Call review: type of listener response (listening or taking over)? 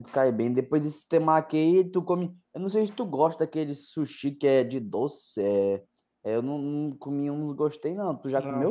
taking over